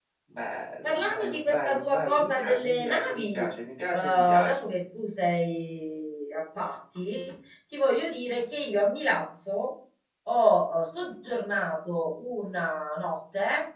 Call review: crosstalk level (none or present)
present